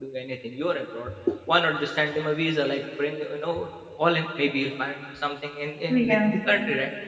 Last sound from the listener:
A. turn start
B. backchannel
B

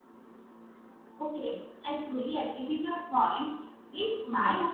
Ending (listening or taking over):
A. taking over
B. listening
B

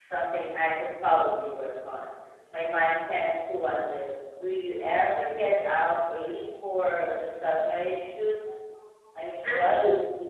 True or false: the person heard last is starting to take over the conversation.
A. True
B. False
A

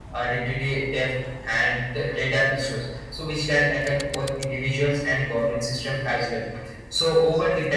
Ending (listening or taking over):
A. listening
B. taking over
A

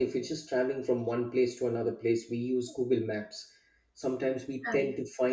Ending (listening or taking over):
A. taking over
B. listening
B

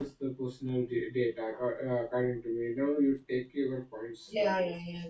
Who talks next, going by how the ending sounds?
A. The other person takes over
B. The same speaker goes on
A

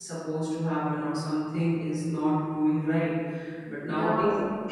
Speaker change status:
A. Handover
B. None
B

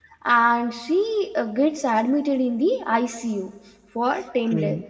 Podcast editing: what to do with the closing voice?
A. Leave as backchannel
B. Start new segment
A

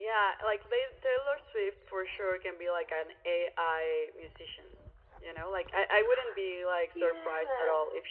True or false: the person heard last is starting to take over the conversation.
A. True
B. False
B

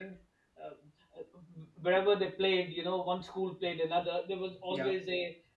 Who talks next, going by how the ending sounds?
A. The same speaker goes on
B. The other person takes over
A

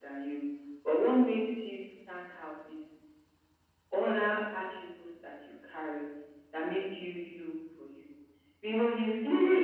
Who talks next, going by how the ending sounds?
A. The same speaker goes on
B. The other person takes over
B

